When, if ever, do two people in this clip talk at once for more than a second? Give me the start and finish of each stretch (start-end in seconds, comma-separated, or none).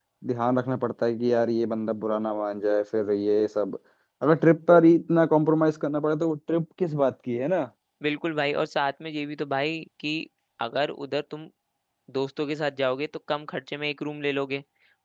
none